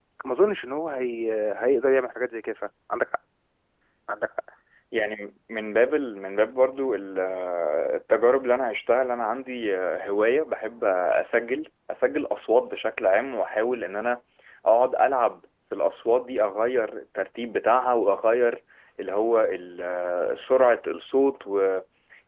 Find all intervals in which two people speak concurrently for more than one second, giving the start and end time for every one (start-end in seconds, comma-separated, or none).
none